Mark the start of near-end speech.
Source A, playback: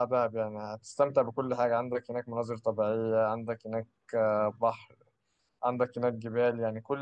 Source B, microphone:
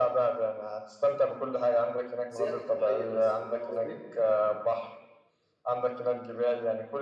2.3 s

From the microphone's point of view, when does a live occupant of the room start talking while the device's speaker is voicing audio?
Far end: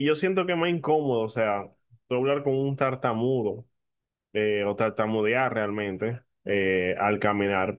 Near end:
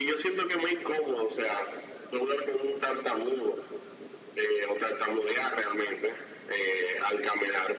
none

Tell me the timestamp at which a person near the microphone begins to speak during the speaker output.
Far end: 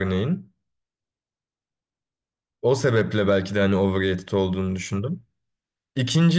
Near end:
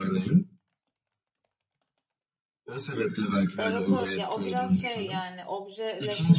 3.6 s

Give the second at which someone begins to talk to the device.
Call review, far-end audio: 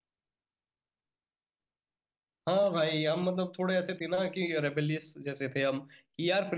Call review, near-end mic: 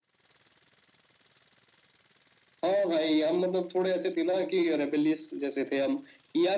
none

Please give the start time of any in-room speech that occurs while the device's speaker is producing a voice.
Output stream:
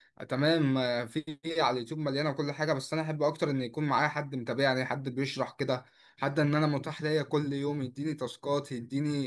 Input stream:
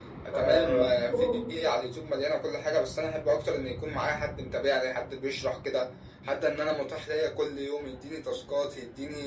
0.3 s

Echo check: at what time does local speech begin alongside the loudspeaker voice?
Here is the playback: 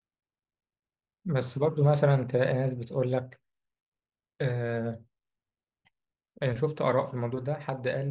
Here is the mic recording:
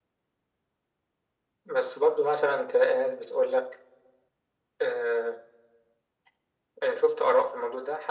none

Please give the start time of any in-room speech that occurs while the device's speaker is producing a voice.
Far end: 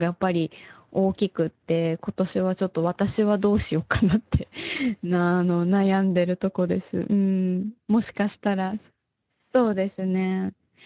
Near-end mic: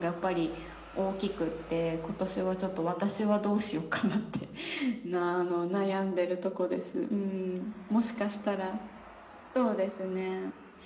none

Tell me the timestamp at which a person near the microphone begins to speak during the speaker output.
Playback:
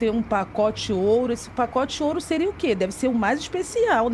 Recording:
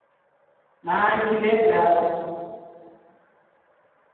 0.9 s

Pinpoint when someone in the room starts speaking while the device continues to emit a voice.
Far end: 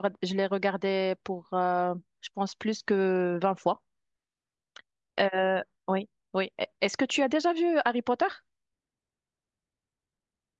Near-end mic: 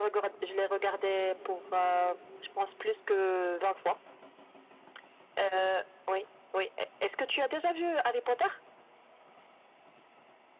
none

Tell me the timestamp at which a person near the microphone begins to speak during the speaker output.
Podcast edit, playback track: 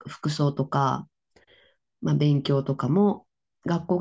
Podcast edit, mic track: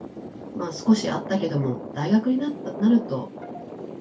0.5 s

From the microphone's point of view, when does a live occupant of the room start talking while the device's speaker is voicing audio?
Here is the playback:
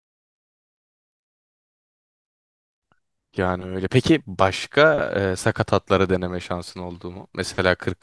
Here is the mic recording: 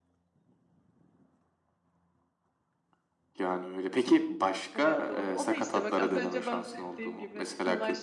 4.7 s

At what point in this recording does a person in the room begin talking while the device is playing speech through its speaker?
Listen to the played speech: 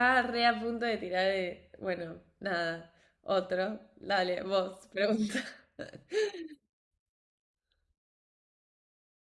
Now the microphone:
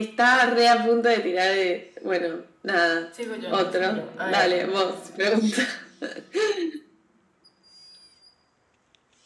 3.1 s

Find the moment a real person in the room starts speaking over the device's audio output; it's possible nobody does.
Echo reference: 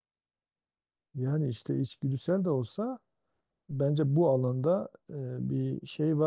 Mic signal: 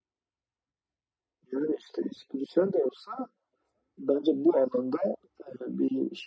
none

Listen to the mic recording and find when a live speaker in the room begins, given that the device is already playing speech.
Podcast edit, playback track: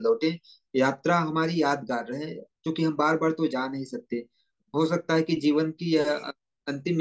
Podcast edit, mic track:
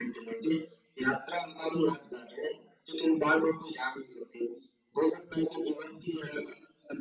none

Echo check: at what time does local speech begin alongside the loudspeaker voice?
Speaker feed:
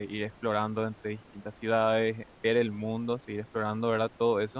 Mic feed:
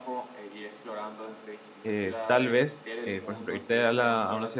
1.8 s

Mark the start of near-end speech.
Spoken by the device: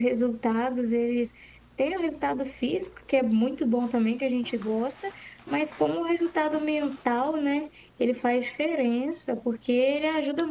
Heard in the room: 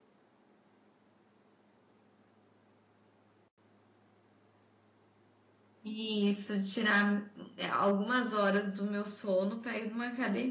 5.8 s

